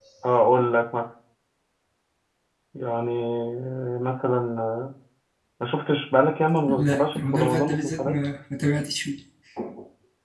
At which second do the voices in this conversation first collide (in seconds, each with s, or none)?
6.7 s